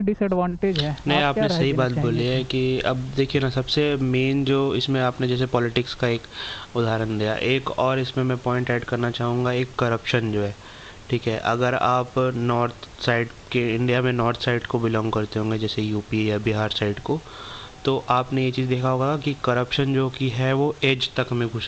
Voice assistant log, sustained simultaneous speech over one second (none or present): present